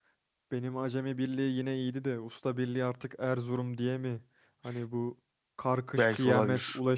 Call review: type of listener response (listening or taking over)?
listening